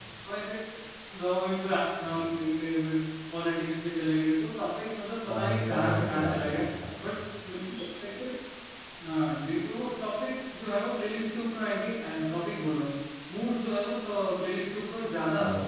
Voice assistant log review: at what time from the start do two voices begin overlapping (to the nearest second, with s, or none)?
5 s